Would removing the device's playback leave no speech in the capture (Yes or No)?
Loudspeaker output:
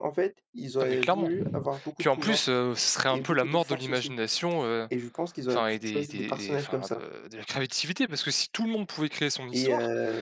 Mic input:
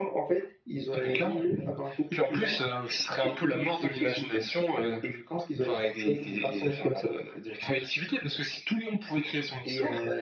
Yes